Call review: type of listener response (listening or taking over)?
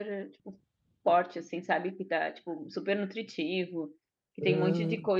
listening